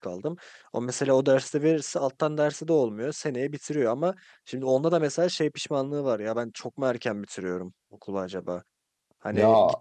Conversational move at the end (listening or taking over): listening